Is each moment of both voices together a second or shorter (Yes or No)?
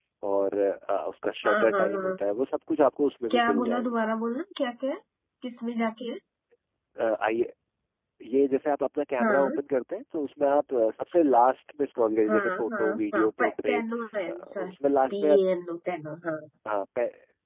No